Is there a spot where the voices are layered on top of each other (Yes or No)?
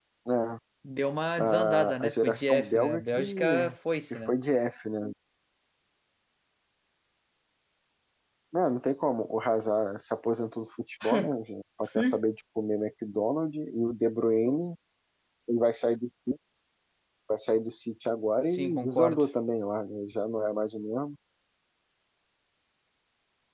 Yes